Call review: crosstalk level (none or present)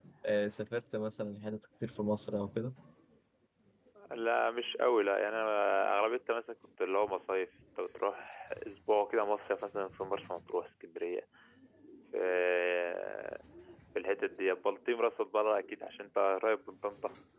none